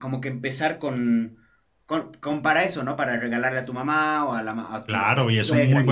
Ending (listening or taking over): taking over